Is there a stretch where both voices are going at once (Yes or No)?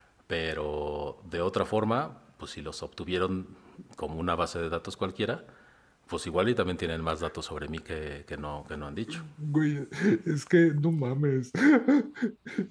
No